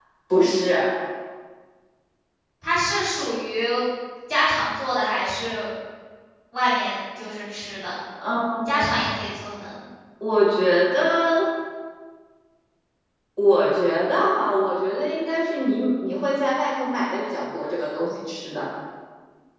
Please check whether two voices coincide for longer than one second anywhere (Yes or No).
No